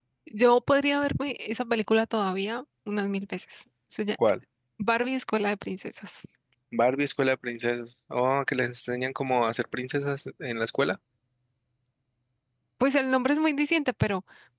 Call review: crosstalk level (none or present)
none